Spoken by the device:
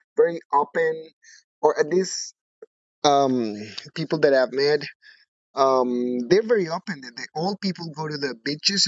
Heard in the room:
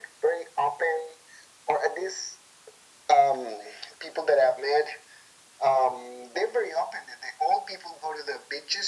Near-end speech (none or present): none